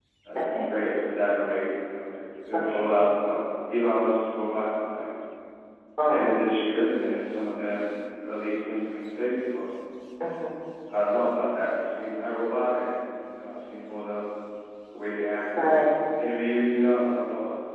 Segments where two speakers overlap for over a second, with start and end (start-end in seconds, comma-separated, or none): none